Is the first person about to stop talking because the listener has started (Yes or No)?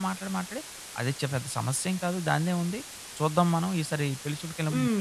Yes